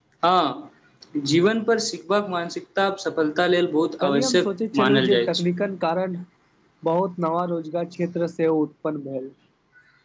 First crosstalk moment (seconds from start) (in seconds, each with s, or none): 4.0 s